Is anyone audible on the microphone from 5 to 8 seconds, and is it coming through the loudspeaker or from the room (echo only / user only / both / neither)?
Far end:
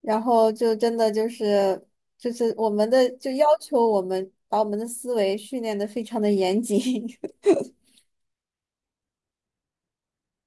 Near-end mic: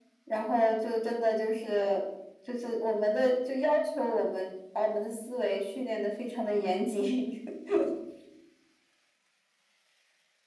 echo only